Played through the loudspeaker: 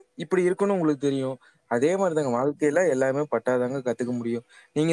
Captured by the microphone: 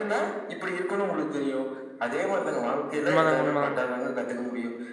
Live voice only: உண்மதாங்க உண்மதாங்க

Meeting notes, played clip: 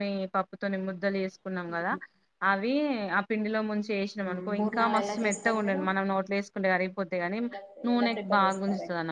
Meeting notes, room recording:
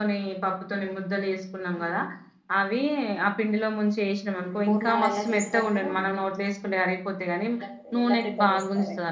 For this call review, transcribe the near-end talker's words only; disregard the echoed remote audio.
none

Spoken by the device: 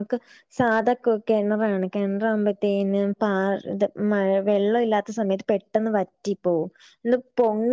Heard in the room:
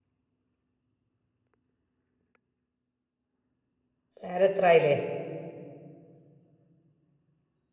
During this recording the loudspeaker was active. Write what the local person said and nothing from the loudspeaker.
നേരെത്രായില്ലേ

